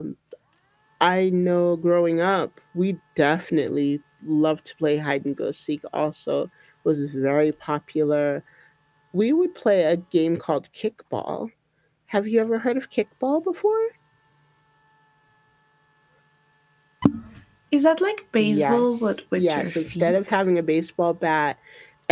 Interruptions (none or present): present